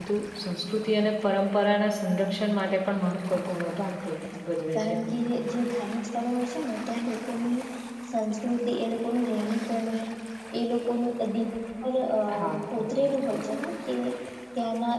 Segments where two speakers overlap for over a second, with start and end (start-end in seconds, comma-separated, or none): none